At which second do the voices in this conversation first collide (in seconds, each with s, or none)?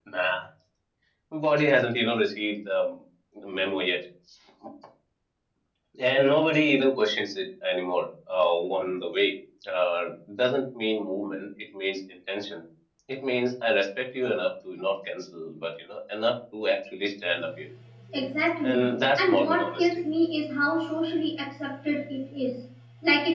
18.6 s